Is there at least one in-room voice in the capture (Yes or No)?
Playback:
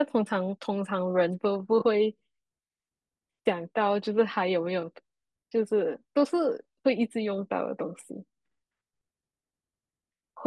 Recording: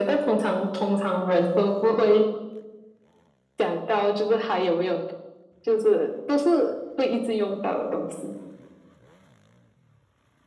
No